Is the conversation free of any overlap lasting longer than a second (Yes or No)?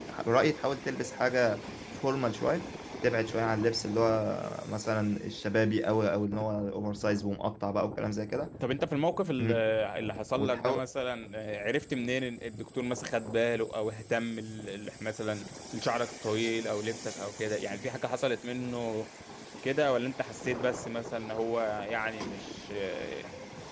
Yes